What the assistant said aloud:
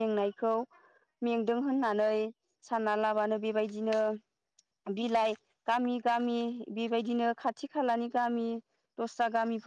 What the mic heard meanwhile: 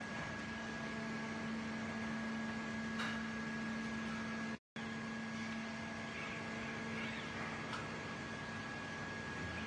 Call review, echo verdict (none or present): none